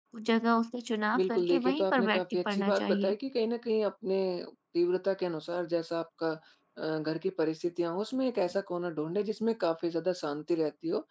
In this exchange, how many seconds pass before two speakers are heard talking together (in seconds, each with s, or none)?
1.1 s